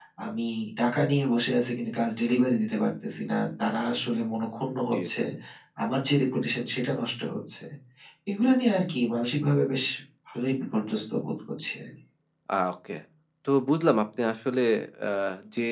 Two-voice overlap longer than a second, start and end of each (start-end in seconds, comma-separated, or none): none